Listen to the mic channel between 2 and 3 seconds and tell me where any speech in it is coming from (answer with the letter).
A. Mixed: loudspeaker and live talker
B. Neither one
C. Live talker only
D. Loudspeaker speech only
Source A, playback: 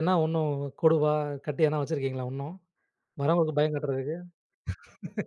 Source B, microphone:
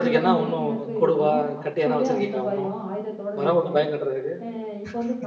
A